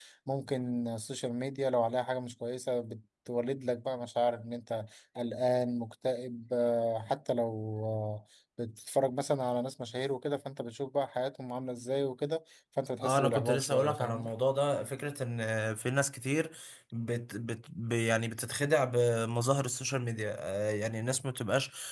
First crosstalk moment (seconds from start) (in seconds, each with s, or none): 13.0 s